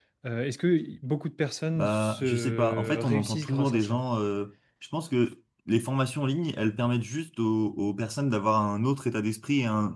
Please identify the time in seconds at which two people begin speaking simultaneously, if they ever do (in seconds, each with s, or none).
1.8 s